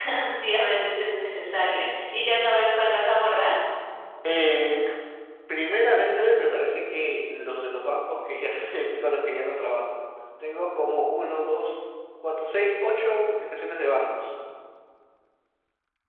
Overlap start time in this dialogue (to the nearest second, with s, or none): none